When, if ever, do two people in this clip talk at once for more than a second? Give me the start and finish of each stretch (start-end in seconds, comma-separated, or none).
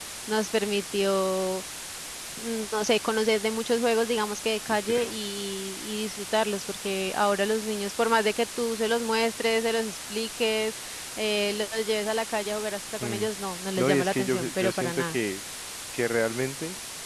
13.8-15.2